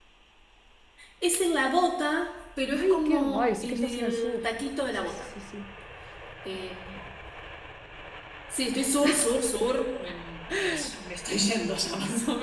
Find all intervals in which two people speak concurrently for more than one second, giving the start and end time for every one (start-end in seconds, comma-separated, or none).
2.8-4.4